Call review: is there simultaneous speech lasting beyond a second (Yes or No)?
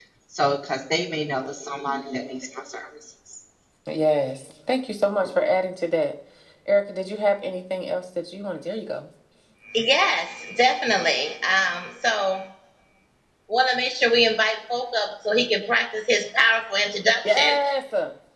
No